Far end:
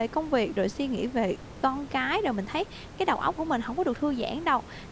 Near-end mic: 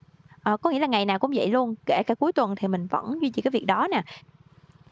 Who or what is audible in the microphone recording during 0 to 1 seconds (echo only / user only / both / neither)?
user only